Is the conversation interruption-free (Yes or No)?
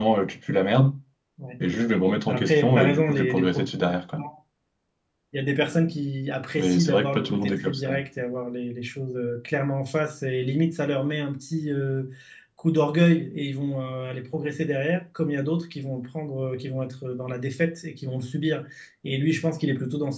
No